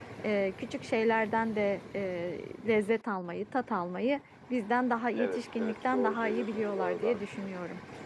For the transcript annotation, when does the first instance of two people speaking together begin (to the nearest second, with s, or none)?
5 s